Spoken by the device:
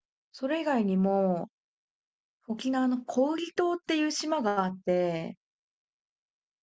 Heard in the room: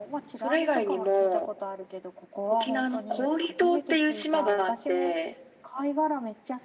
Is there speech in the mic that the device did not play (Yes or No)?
Yes